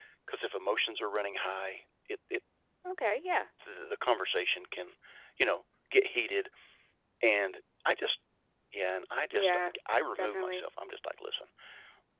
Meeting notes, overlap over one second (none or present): none